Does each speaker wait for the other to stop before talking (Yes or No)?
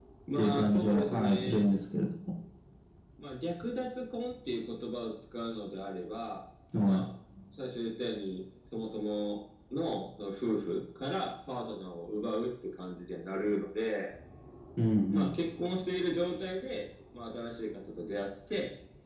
No